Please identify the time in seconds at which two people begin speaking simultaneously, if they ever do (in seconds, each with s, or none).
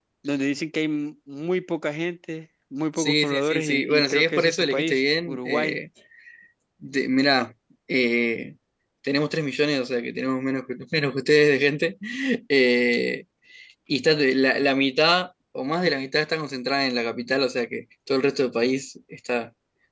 3.0 s